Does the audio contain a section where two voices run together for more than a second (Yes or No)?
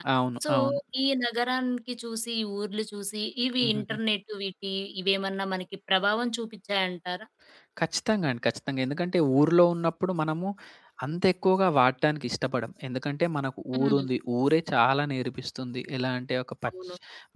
No